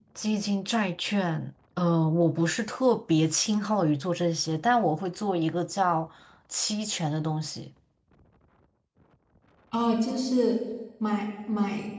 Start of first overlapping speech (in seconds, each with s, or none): none